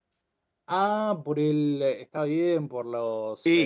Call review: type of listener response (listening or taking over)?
listening